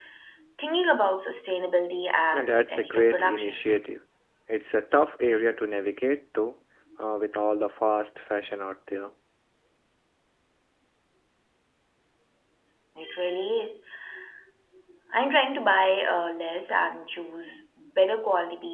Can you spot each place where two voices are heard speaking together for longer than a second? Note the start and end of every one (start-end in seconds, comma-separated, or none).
2.3-3.7